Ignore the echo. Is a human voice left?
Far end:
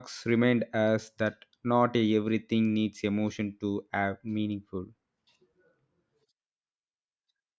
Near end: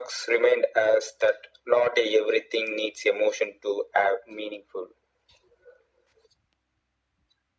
No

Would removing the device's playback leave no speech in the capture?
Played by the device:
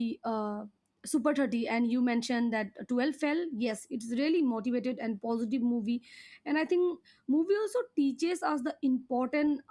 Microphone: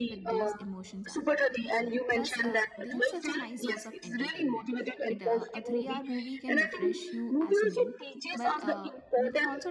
No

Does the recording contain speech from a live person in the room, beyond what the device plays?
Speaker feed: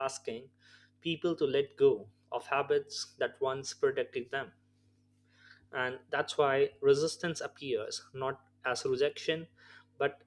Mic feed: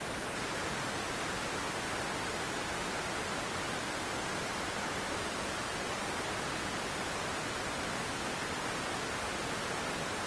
No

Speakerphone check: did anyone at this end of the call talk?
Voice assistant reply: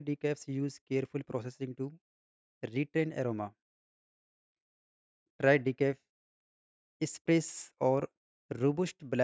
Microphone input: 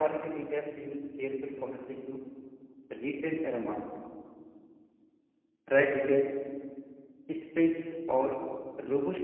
No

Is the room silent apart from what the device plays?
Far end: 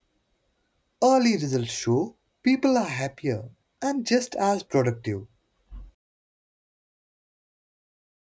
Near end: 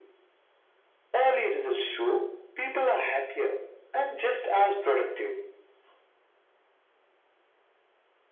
Yes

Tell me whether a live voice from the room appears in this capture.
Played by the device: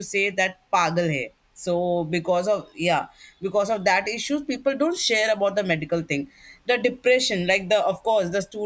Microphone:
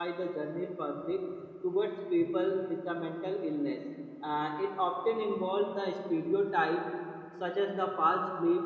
Yes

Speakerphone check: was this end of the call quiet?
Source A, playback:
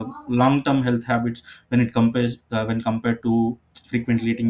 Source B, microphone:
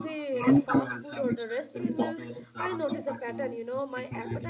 No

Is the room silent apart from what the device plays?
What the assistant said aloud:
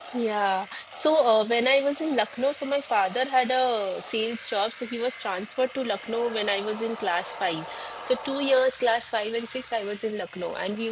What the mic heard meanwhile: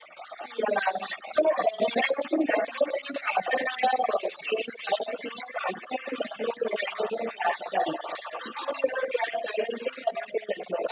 Yes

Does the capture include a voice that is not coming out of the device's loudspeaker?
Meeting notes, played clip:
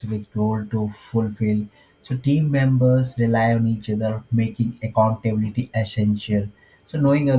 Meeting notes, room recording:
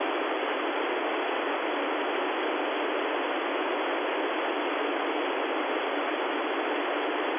No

